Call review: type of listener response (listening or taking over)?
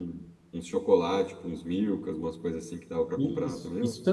taking over